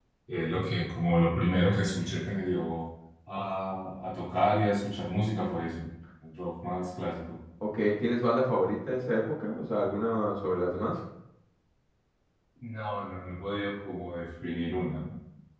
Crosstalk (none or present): none